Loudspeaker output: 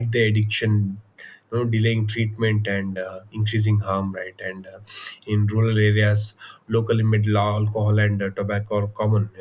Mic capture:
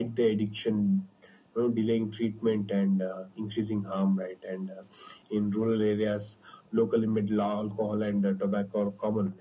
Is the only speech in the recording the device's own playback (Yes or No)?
Yes